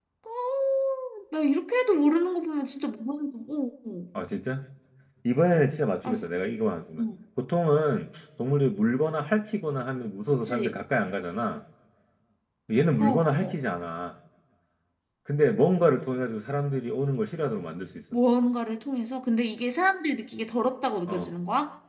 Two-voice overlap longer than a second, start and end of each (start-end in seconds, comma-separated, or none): none